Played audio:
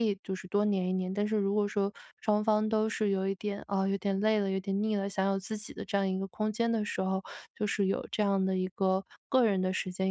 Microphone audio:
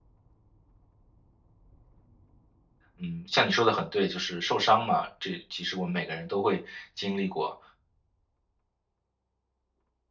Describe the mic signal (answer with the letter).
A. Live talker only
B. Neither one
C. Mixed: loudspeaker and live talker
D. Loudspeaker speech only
A